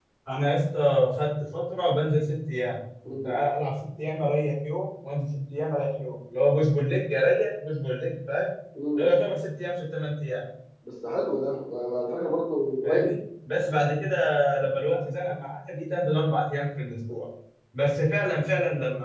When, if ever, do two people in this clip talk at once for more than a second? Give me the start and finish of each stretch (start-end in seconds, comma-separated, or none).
none